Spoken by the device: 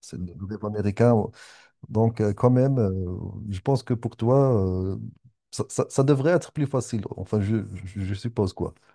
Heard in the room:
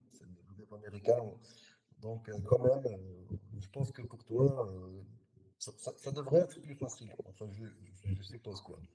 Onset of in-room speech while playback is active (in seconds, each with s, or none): none